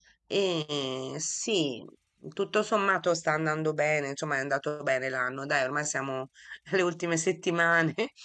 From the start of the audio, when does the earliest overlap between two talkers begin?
none

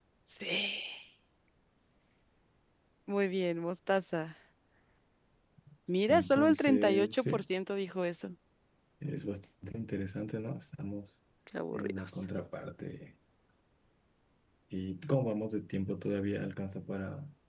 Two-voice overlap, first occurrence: 6 s

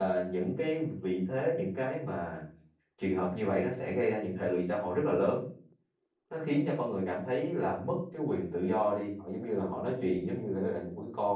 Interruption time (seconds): none

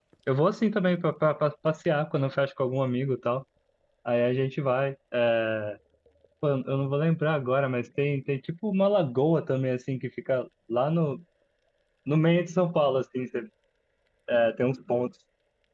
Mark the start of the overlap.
none

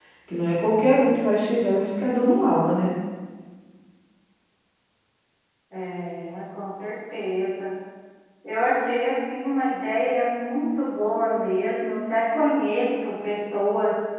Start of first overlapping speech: none

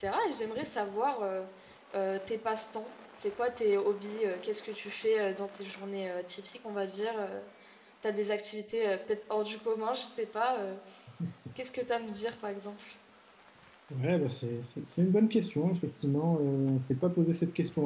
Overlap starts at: none

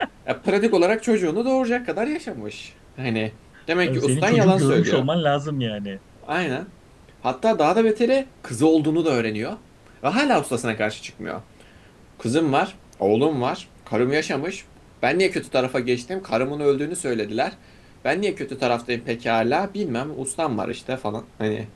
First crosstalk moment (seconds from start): 4 s

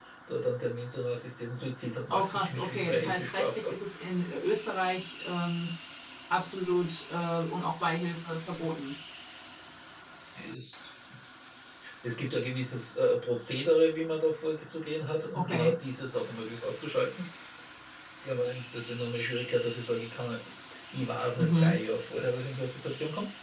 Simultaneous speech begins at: 2 s

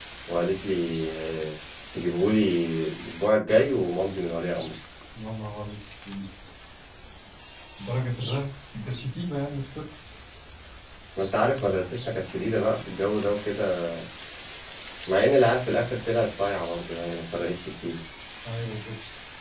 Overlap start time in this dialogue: none

